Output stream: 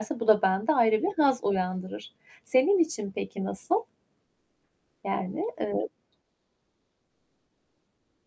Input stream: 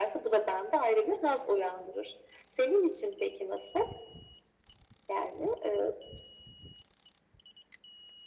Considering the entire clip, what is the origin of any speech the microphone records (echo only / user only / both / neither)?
echo only